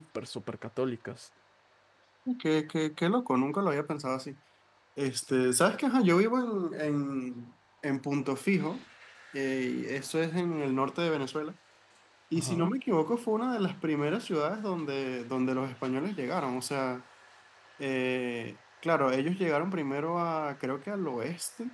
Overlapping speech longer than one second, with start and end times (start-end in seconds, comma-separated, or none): none